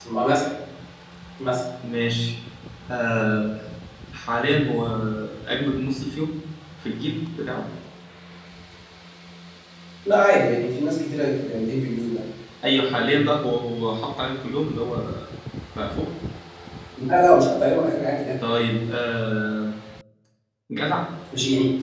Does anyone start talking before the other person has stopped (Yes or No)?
No